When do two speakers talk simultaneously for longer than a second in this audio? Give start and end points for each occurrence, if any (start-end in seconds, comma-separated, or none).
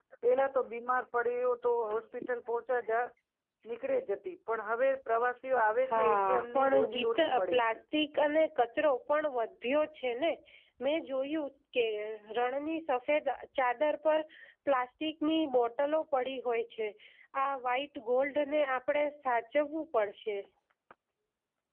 5.9-7.8